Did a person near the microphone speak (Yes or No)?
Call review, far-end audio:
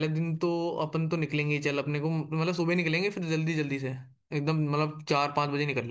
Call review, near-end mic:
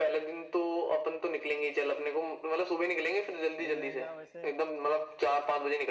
Yes